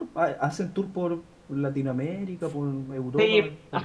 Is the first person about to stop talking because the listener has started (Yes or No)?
Yes